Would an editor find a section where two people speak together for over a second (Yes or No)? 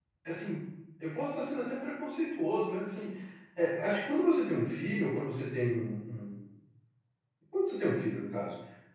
No